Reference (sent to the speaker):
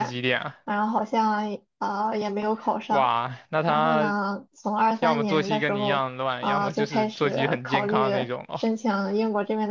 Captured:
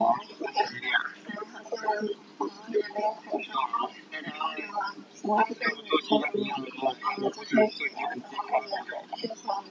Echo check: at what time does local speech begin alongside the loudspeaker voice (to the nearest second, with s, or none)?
none